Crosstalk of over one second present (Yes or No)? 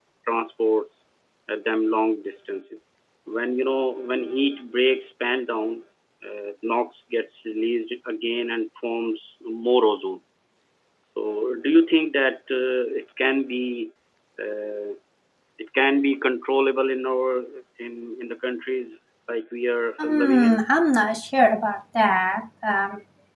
No